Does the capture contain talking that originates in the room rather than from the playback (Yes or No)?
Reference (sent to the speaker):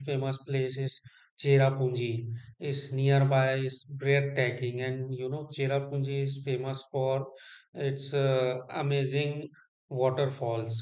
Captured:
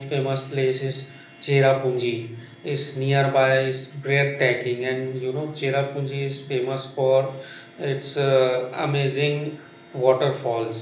No